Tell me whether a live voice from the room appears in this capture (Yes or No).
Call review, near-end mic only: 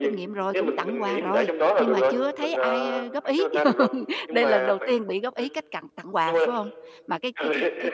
Yes